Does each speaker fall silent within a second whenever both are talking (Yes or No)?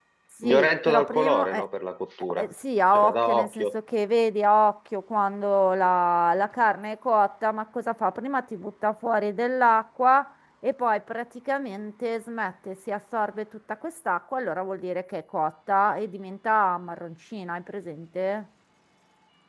No